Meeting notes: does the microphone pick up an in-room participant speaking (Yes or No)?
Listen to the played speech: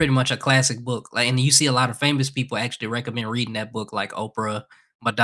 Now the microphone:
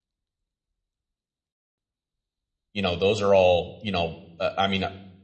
Yes